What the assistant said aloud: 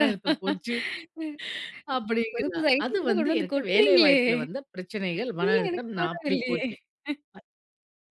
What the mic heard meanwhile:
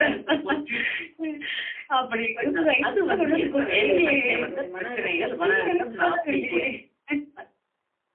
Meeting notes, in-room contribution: present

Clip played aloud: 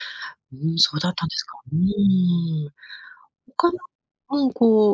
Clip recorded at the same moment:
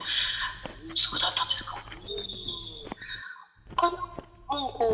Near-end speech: none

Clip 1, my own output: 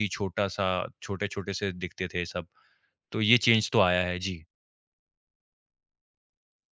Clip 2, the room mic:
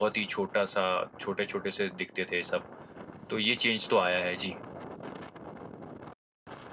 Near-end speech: none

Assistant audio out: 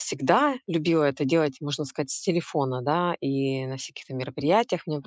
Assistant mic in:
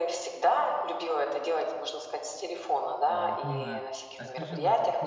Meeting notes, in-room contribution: present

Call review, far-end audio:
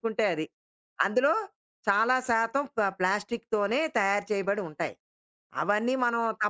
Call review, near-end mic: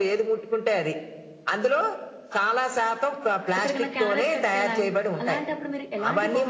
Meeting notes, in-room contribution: present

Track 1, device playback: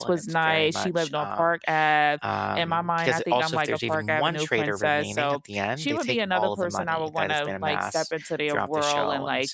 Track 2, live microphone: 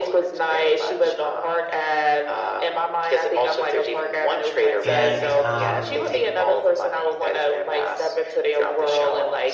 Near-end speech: present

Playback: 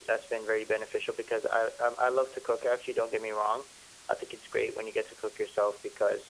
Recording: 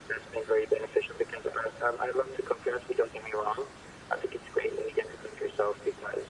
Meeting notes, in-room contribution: none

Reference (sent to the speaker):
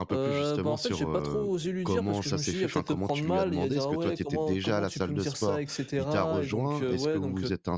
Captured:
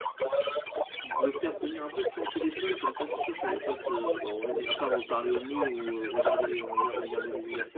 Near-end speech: present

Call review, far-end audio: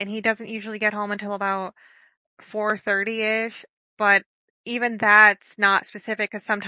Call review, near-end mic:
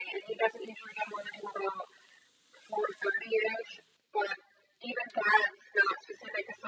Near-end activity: none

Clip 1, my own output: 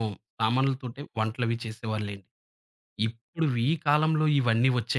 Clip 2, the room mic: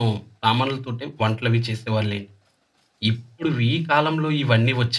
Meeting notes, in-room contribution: none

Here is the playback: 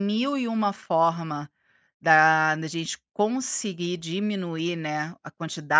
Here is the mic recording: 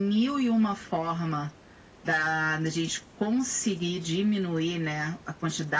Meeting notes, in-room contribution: none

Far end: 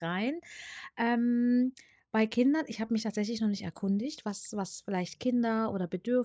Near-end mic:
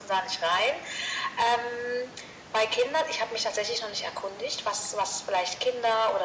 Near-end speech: none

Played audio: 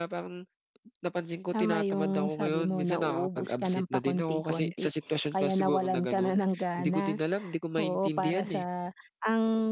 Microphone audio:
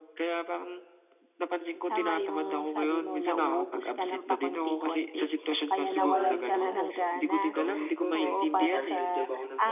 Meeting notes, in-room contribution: present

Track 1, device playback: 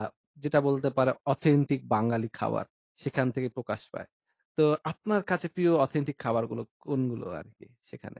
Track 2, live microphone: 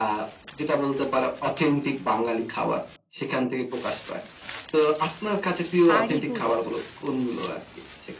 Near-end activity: present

